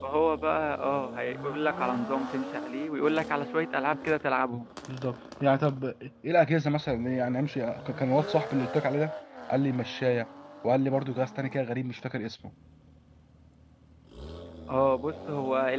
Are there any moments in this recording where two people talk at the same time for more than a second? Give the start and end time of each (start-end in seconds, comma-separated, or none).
none